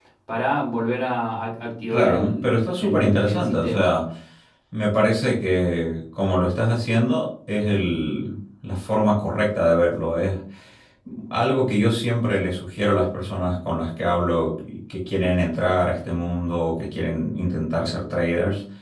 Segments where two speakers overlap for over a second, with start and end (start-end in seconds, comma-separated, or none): 1.9-3.9